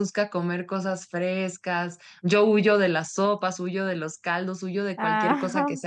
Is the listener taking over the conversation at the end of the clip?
No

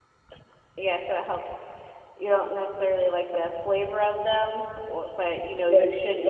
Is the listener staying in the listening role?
No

